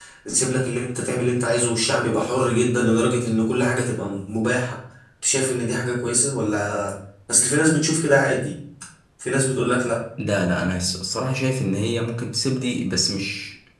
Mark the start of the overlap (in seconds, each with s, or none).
none